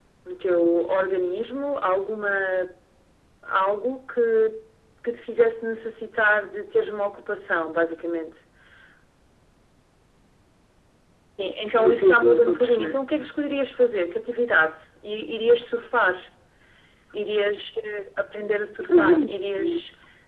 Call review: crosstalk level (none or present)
present